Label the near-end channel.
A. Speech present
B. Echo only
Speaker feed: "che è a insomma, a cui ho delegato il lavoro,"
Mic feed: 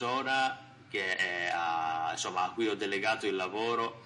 B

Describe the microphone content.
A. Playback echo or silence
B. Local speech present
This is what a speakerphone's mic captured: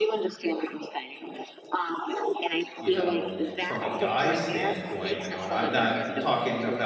B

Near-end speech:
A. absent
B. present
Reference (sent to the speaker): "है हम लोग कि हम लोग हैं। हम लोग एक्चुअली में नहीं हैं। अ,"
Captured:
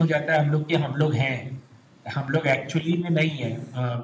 A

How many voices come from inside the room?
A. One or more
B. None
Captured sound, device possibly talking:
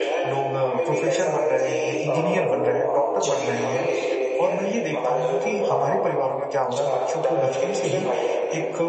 A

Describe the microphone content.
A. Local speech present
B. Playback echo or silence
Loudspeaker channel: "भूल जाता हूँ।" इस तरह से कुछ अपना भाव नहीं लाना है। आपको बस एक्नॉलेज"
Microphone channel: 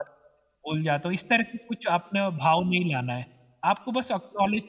B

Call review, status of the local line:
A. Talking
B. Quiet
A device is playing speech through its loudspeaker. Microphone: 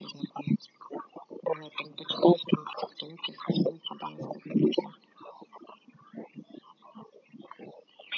B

